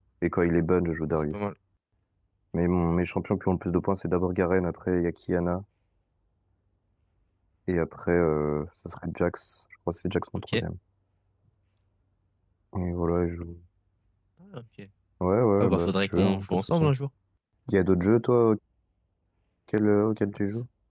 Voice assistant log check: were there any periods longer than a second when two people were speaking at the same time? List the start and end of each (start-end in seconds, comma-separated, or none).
15.6-16.8